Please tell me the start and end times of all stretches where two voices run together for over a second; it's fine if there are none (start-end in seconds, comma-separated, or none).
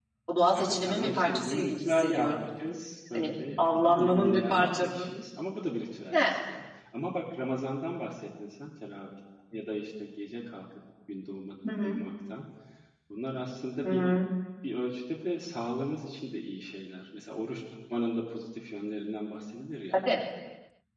0.5-2.4, 3.2-5.1